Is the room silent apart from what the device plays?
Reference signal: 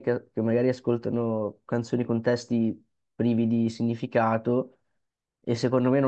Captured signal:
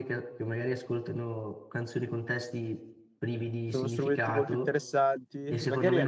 No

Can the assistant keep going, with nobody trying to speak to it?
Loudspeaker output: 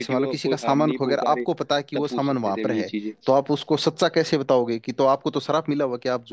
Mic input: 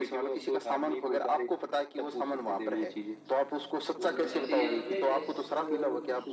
No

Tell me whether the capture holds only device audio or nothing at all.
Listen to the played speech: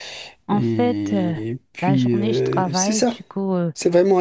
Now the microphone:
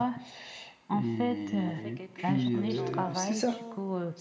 No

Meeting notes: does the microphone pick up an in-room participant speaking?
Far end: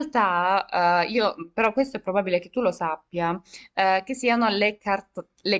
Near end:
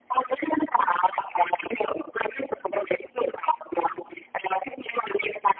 No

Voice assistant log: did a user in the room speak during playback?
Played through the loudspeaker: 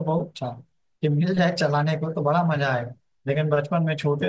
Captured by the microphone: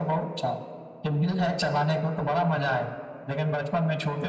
No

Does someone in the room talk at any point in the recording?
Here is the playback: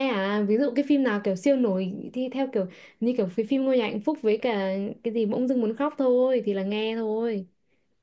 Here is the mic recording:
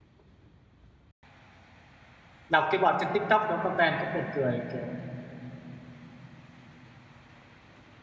Yes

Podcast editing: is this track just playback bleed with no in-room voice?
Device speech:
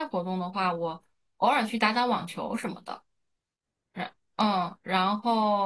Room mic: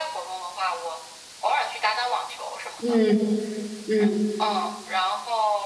No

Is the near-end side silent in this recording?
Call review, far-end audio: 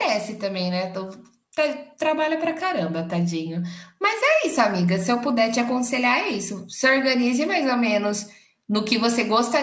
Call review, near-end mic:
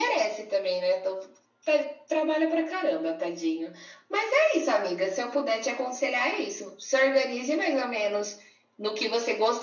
Yes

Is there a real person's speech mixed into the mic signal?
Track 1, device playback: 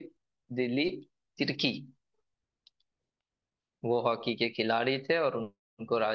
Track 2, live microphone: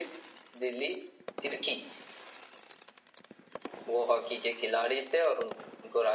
No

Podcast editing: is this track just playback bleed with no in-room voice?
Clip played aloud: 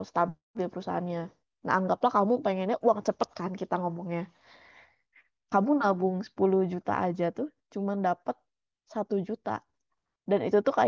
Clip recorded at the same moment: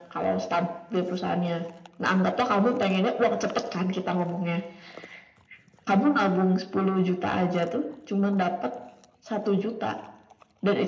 Yes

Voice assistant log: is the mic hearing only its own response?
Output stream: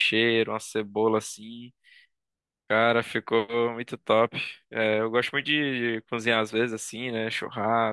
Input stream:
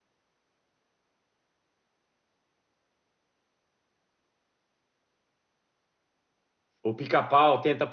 No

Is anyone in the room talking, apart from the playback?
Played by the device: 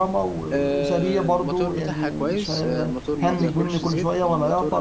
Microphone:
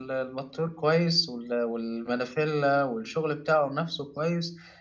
Yes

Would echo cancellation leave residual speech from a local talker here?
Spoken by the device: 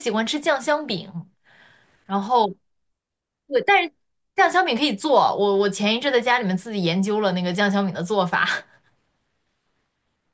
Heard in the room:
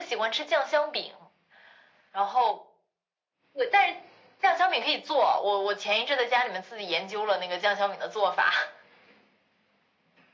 No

